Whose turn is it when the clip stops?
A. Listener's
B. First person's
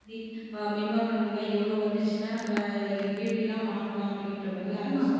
A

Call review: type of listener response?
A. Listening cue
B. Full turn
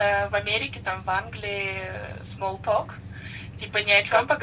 A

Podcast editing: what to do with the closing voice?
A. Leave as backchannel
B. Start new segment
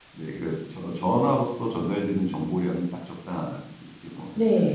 B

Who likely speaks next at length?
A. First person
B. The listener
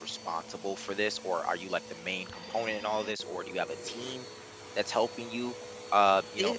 A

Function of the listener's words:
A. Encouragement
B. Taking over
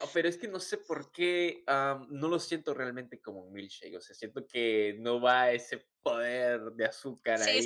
B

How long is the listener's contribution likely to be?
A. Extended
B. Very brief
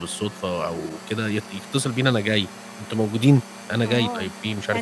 A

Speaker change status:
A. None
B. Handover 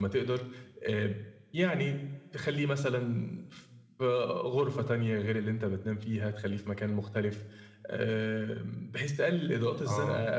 A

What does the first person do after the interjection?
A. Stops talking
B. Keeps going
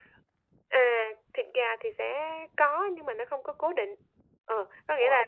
B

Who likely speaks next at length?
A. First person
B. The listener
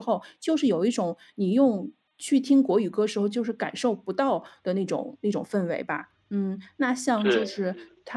A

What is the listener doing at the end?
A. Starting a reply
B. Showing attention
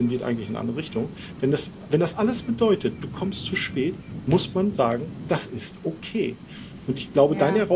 B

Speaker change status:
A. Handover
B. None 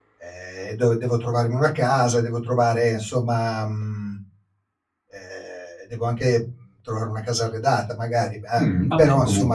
A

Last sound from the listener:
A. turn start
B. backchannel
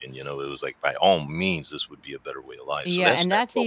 A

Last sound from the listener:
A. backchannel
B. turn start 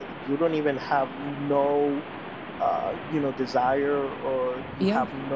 A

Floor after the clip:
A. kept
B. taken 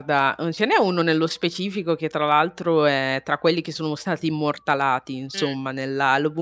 A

